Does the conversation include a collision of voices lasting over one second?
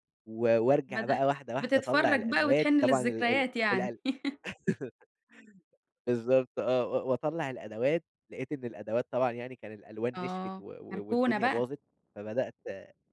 Yes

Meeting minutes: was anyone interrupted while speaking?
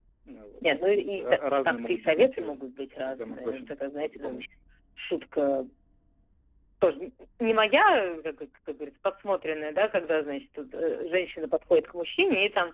Yes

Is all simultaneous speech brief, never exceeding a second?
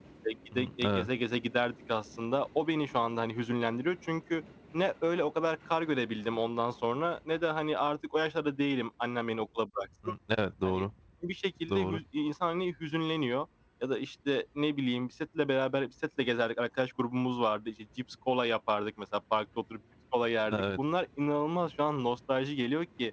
Yes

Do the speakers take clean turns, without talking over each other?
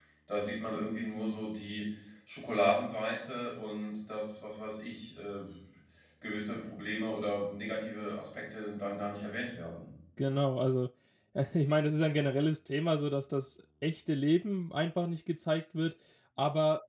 Yes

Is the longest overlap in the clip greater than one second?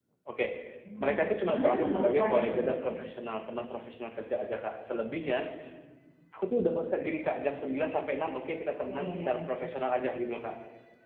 Yes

